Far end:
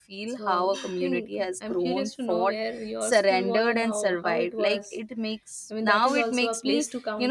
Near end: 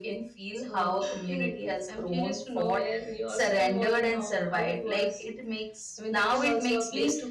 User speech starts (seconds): none

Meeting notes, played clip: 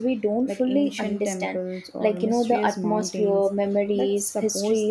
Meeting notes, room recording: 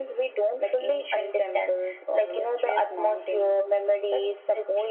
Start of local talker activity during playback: none

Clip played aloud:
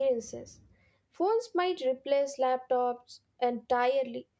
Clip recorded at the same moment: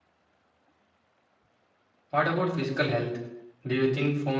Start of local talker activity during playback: 2.1 s

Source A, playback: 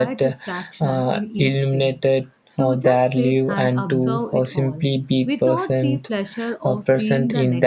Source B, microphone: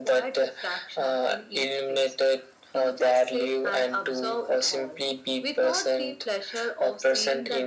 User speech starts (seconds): none

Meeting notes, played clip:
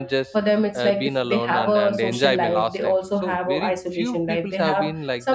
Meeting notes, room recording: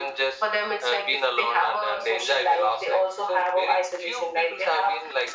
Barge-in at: none

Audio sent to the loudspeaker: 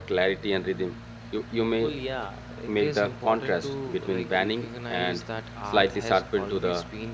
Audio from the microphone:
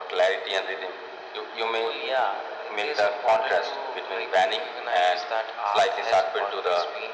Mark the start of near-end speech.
none

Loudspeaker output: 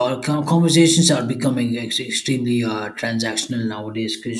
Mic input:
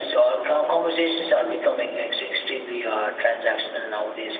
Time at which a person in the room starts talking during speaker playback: none

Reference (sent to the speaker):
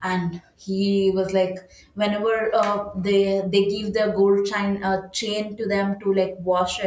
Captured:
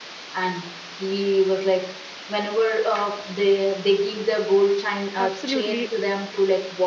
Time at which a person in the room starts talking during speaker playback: 5.2 s

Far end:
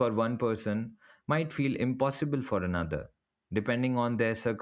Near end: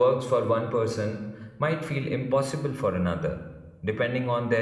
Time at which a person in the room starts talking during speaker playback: none

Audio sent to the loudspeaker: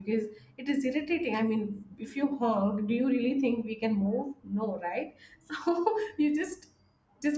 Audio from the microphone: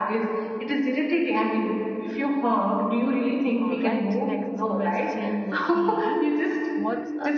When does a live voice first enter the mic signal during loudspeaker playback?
3.6 s

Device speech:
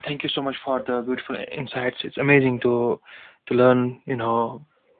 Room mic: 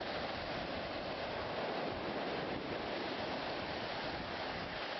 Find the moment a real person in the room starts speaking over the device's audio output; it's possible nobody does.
none

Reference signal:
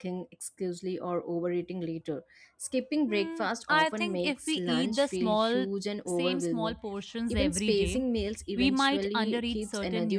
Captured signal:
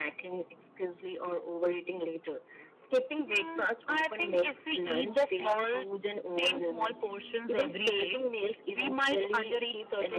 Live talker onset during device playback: none

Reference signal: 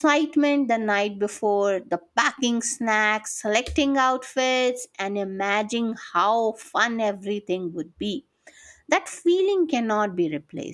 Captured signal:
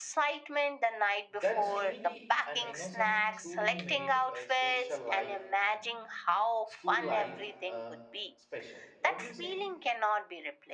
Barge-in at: 1.4 s

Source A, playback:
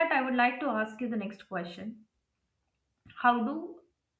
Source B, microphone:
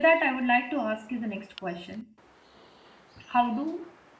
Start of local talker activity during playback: none

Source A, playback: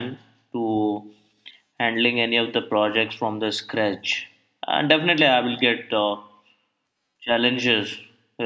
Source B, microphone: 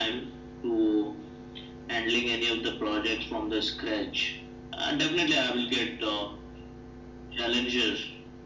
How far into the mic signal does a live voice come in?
none

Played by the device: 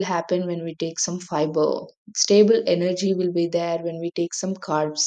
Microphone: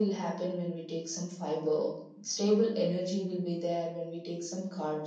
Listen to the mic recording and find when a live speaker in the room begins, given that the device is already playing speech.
none

